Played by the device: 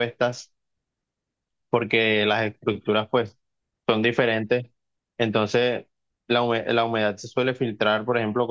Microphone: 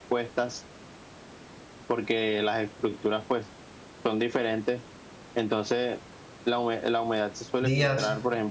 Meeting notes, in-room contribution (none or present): present